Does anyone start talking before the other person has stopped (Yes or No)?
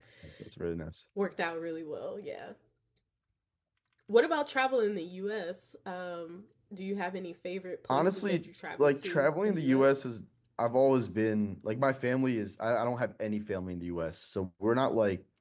Yes